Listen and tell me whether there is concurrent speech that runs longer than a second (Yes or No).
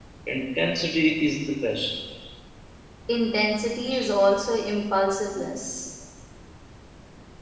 No